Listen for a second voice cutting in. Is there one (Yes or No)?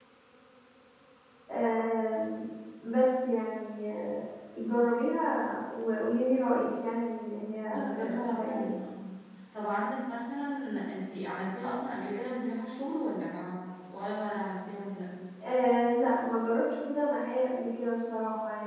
Yes